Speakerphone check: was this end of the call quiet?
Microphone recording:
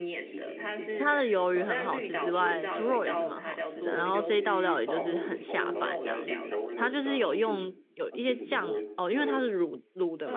No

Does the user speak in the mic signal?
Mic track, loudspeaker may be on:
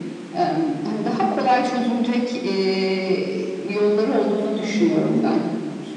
Yes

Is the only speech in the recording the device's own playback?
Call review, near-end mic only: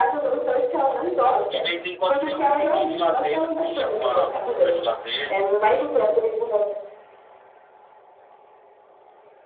No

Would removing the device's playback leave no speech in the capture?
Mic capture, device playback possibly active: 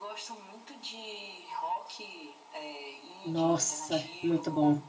No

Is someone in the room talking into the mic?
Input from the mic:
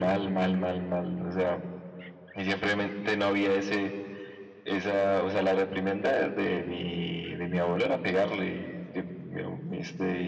No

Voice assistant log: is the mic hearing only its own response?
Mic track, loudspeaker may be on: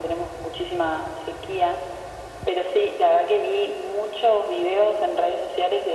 Yes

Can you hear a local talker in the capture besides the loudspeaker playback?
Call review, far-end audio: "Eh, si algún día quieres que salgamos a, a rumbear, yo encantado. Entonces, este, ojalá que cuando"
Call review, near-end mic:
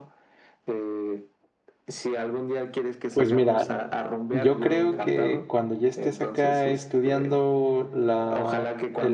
Yes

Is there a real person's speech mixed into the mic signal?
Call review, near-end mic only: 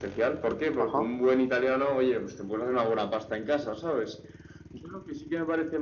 Yes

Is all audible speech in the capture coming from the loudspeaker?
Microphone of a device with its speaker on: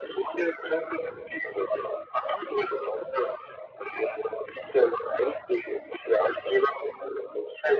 Yes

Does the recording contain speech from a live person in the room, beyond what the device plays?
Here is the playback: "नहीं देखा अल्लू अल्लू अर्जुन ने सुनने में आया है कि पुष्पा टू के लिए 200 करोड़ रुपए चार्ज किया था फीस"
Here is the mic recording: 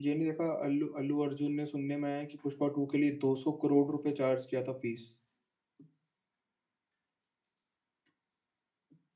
No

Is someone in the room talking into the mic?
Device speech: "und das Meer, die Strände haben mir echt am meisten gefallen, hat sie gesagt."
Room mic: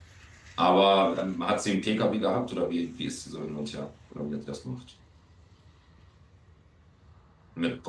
Yes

